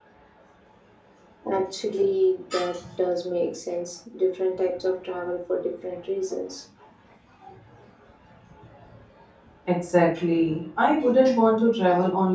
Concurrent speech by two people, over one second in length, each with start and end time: none

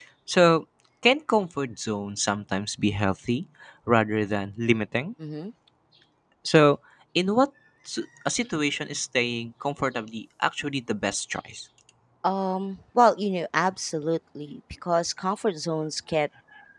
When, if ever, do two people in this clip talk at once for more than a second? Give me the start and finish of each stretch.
none

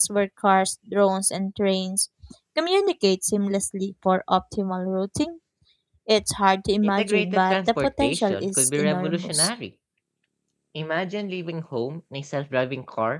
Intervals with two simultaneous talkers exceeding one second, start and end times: 6.8-9.5

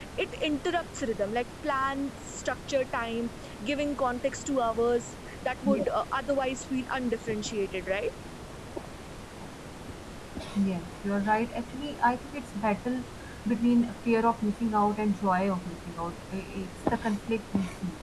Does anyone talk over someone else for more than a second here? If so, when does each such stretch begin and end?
none

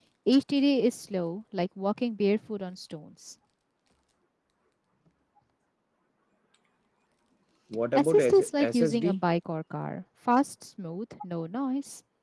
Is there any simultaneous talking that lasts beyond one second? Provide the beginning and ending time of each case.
8.0-9.2

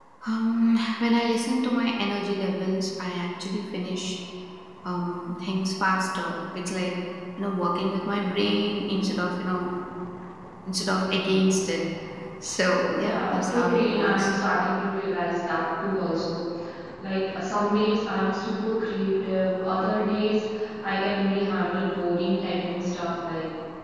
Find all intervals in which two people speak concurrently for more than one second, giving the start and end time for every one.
13.0-14.3

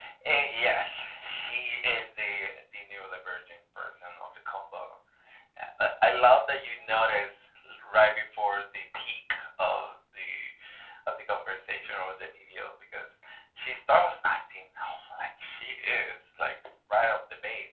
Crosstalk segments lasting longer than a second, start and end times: none

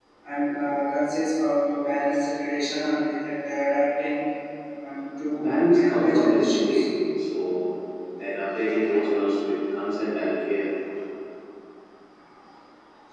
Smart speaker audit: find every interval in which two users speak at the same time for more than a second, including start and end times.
5.4-6.8

